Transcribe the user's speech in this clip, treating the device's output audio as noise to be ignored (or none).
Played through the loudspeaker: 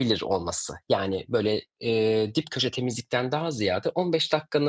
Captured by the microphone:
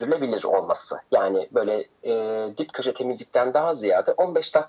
none